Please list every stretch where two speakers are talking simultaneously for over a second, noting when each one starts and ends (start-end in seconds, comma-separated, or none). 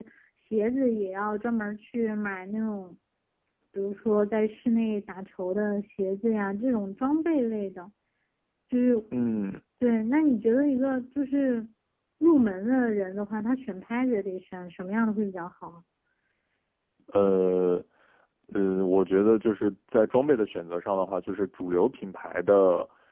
none